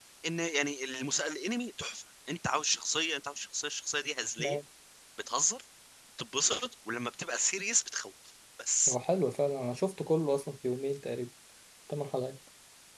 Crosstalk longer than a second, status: none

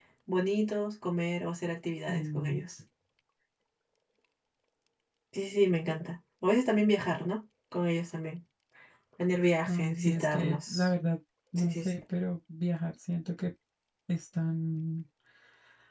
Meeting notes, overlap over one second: present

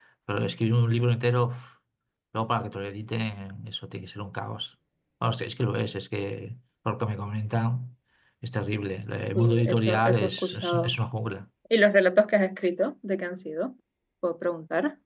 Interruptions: present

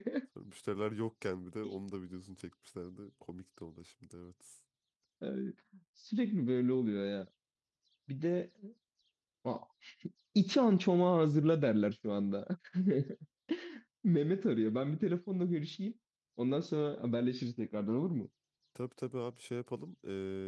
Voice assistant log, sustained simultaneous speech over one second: none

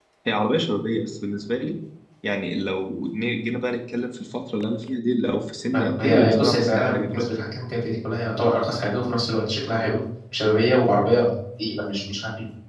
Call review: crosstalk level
present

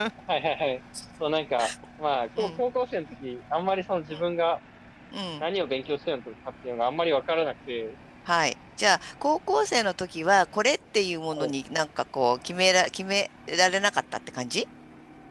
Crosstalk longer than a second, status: none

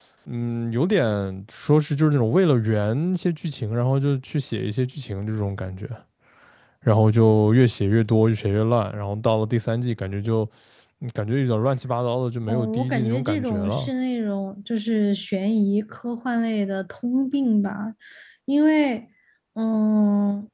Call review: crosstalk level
present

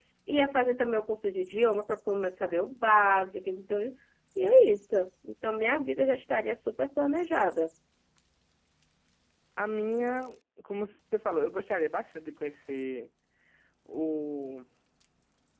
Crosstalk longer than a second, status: none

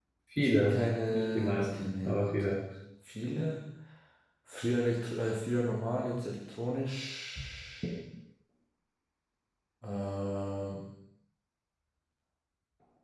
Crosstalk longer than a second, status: present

